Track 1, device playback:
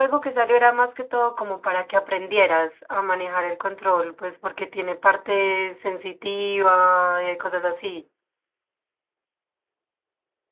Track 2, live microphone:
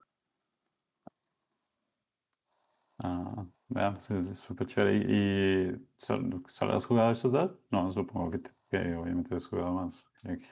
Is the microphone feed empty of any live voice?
No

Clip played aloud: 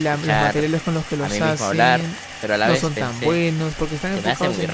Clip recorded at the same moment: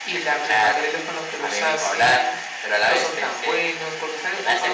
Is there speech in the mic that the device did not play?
No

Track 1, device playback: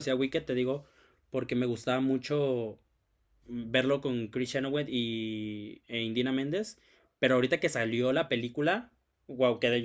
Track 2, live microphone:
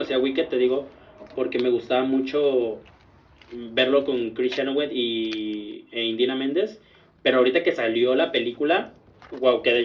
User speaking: No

